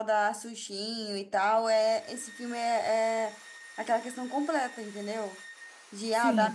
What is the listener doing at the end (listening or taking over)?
listening